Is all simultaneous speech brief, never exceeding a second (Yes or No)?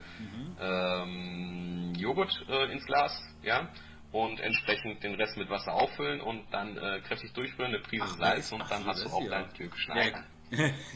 No